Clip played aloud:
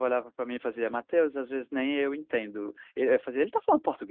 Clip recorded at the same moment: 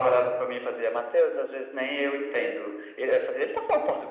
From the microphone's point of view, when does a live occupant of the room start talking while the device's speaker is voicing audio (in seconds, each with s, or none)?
none